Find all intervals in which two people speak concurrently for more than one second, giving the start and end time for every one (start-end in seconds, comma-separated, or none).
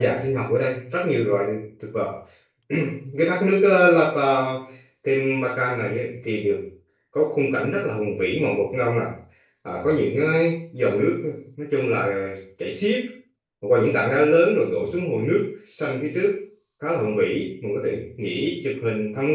none